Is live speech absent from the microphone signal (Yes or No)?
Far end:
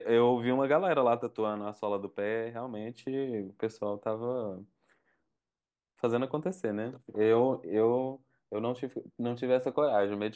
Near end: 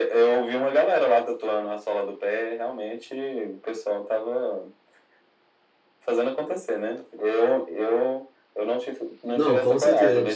No